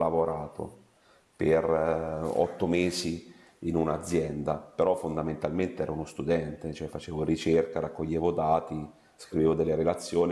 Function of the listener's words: listening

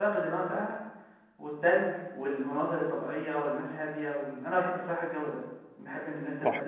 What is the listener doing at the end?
taking over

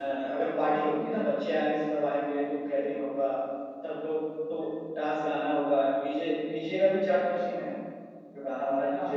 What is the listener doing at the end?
taking over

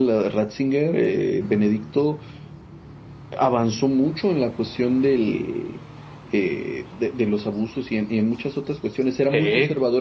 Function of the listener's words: listening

